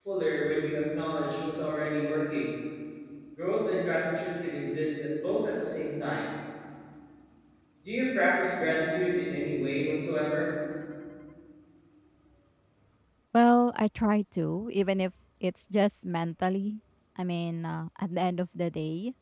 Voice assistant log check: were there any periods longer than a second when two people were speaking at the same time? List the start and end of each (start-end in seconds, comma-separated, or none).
none